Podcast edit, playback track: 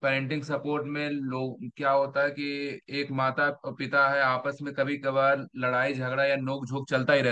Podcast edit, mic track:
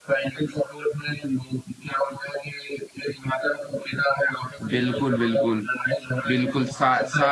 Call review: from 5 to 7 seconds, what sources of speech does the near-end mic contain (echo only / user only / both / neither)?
both